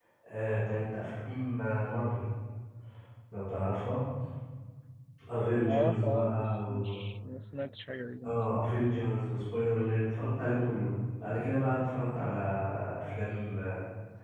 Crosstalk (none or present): present